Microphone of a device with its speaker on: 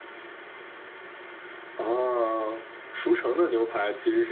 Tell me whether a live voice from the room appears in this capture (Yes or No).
No